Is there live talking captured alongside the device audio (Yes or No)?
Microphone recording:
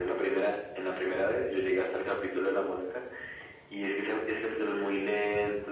No